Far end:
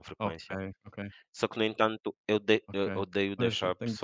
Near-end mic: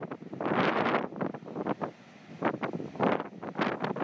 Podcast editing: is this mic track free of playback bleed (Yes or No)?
Yes